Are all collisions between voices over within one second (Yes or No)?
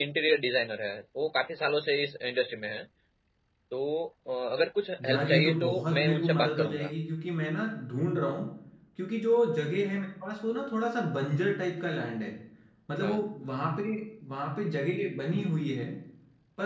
No